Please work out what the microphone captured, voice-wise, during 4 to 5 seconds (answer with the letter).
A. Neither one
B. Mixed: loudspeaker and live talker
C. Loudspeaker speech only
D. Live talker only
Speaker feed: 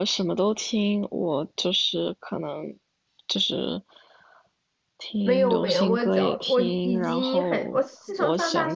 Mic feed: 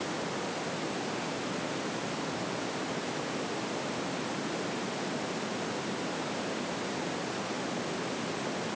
A